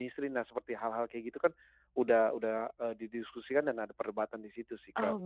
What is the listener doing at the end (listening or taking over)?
taking over